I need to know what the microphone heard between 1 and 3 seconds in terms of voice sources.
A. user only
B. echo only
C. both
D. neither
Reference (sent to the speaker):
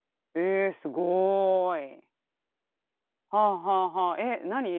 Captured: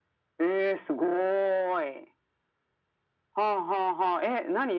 B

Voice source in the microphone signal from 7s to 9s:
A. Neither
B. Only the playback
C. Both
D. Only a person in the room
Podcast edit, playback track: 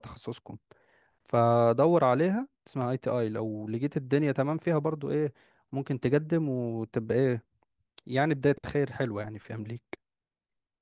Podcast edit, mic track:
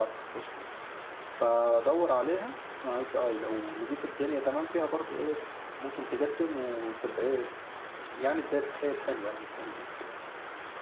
B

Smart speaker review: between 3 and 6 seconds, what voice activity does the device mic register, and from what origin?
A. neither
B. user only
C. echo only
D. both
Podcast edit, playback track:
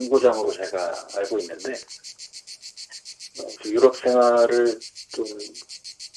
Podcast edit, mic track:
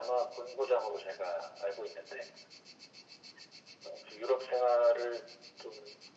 C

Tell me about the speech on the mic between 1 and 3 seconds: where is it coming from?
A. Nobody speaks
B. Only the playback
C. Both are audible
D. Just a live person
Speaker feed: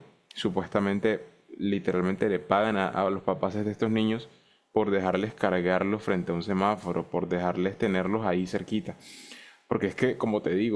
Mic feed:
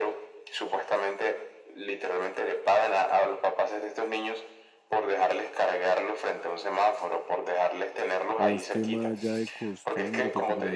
B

